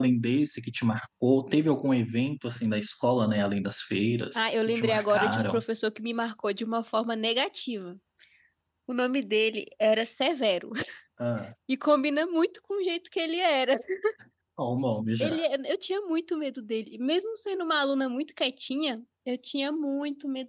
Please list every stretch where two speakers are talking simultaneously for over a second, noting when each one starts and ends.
4.3-5.6

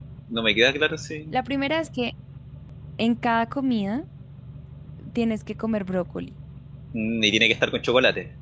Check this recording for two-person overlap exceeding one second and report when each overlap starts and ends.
none

